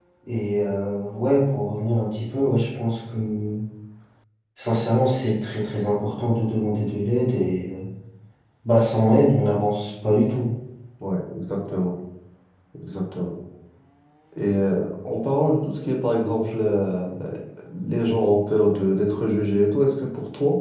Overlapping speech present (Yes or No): No